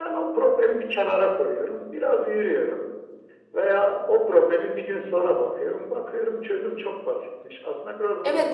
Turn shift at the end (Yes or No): Yes